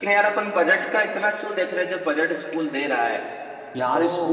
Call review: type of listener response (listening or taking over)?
taking over